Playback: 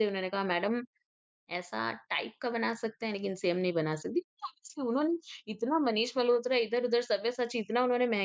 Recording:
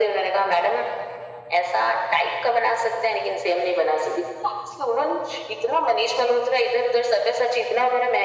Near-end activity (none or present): none